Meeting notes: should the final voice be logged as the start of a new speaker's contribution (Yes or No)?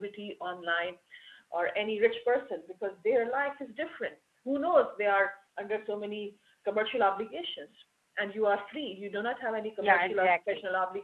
No